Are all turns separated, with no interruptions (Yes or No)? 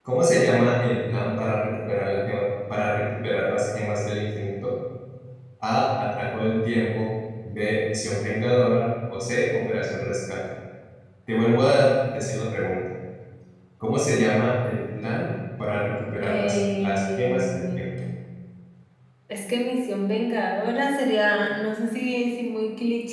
No